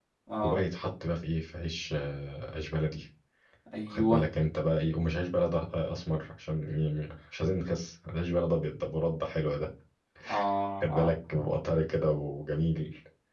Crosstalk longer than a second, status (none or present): none